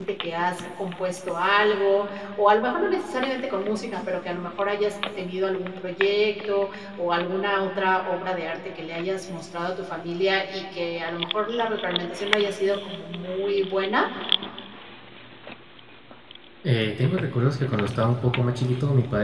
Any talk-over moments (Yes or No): No